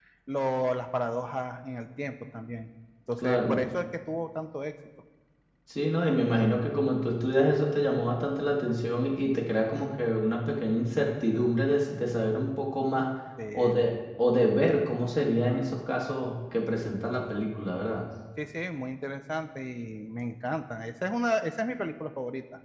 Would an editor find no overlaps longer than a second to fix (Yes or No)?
Yes